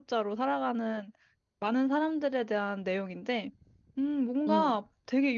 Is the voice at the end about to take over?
No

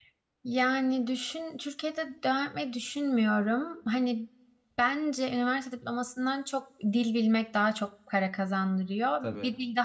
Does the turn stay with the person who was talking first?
Yes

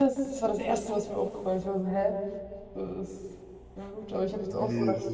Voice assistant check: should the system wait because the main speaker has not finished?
No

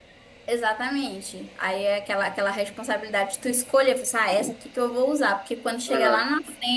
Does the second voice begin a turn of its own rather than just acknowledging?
No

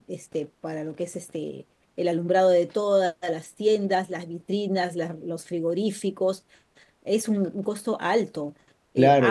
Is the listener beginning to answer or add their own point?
Yes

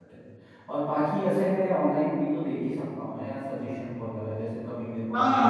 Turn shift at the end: Yes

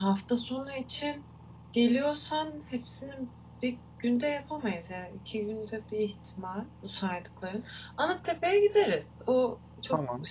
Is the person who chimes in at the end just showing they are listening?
Yes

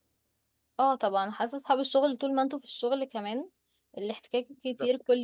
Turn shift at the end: No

